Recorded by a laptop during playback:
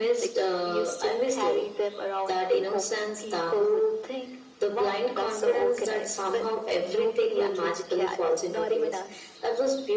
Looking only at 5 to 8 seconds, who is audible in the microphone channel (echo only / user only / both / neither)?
echo only